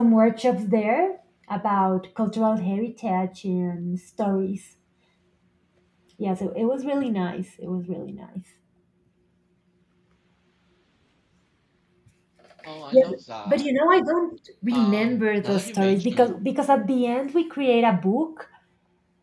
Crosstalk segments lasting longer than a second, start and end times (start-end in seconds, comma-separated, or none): 14.7-16.3